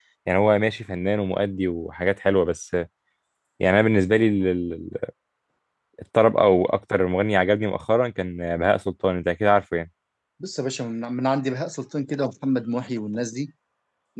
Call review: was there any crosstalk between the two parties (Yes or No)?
No